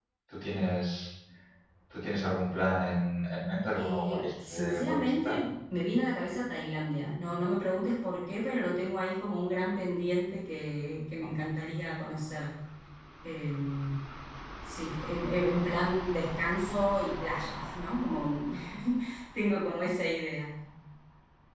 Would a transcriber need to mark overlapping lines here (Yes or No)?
Yes